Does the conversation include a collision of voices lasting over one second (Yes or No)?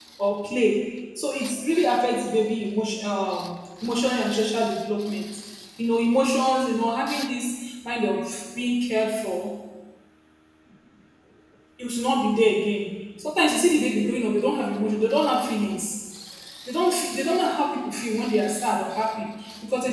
No